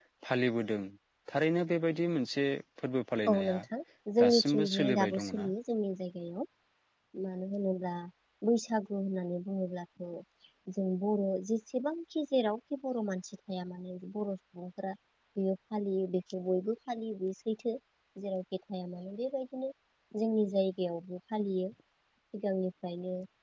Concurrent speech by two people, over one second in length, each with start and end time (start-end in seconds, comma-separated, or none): 4.2-5.5